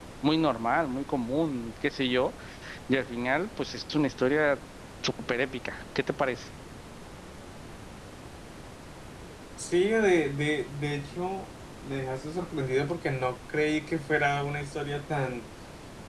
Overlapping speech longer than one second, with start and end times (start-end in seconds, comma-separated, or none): none